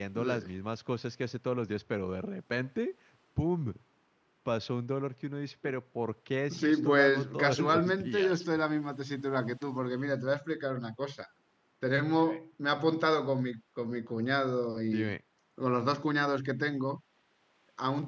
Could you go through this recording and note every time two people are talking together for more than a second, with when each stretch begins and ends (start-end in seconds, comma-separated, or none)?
6.5-8.4